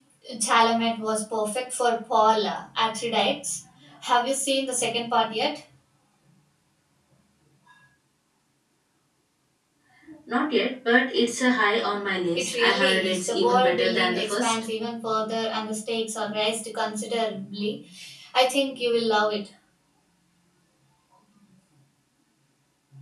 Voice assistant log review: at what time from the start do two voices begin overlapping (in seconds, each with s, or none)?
12.3 s